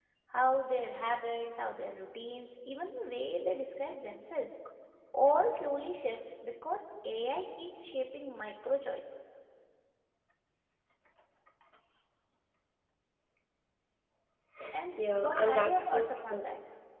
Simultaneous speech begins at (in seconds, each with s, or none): 14.9 s